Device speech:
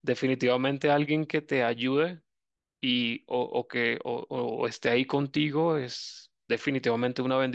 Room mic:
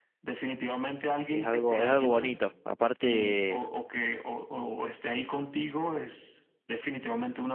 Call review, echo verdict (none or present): present